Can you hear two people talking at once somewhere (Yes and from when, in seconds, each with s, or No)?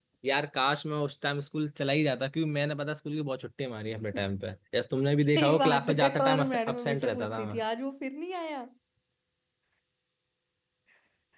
Yes, from 5.2 s